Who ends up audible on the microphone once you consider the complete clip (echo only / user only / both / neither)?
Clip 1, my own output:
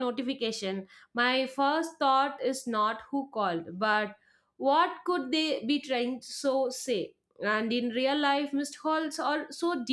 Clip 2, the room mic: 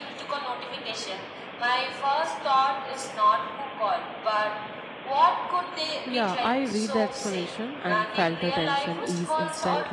both